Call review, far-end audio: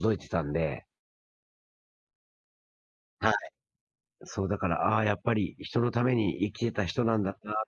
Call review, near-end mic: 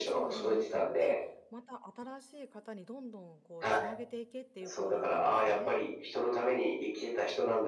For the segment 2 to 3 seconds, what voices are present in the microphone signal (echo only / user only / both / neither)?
user only